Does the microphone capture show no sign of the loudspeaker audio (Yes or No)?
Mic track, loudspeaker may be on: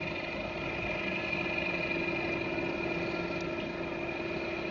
Yes